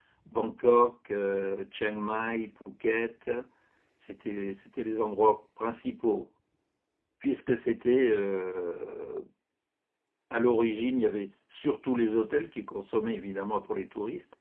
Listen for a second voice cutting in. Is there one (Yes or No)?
No